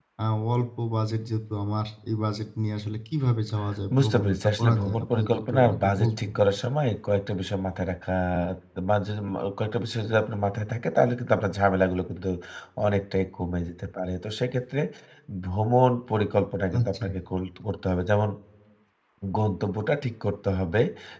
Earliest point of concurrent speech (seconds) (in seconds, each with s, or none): 4.0 s